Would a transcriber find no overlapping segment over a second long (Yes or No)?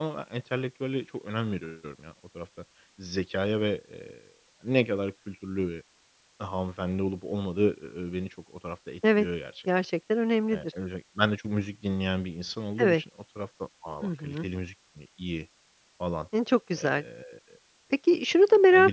Yes